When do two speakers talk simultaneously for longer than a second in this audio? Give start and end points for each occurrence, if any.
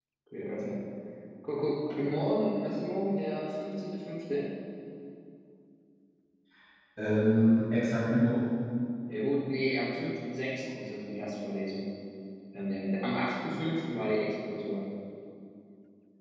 none

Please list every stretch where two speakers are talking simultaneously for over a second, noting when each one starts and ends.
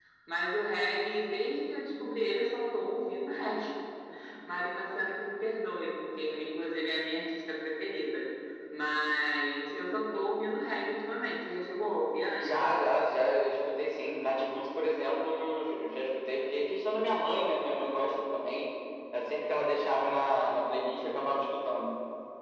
none

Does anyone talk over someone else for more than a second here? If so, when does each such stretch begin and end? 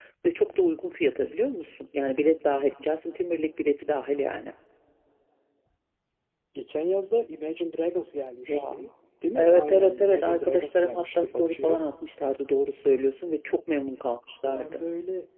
9.4-11.8

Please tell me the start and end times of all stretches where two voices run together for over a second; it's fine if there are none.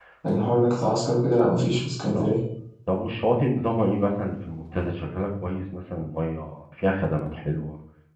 none

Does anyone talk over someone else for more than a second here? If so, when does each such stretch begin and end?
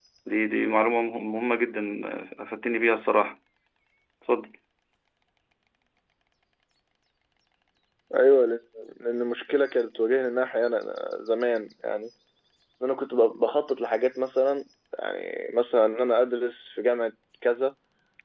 none

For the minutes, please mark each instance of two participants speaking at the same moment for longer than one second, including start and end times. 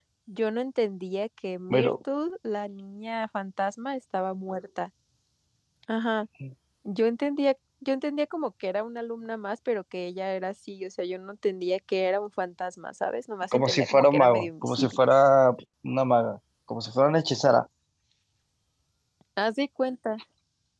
13.5-15.0

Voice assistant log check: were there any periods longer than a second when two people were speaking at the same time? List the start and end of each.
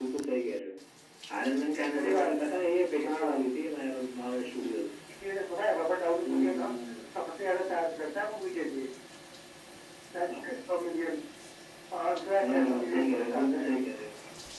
12.4-13.6

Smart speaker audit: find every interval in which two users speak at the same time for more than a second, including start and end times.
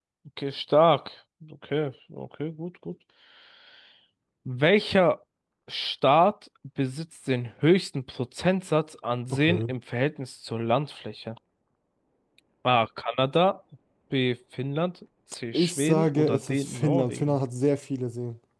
15.5-17.4

